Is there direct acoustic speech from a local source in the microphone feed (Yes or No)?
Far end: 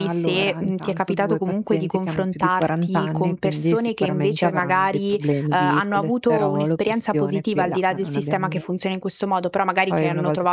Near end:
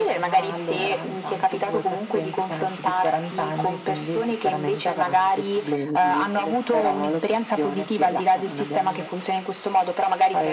No